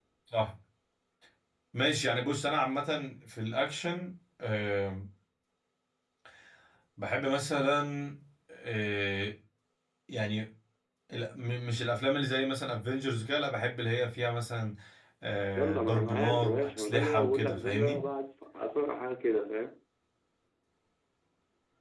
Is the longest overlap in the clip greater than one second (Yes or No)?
Yes